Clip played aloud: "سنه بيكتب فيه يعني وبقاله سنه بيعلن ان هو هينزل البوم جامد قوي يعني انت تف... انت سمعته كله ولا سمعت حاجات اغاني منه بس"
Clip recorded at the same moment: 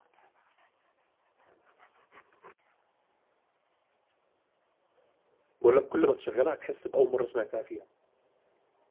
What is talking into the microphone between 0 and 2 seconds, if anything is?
neither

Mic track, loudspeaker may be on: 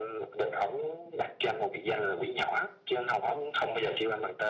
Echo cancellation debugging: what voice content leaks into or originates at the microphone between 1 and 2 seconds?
echo only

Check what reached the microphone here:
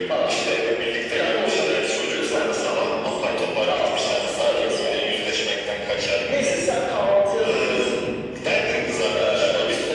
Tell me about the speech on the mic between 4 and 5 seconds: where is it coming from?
echo only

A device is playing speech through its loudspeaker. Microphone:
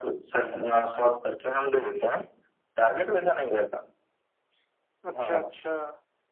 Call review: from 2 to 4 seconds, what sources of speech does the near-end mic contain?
echo only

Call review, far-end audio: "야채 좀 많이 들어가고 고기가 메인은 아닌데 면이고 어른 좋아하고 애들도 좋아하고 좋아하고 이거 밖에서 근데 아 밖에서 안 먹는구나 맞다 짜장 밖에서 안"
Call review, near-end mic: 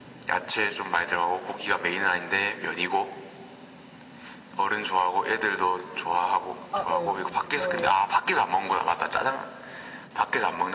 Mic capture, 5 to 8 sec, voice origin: both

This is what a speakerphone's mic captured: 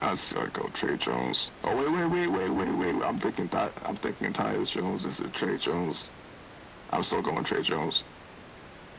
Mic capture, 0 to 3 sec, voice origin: echo only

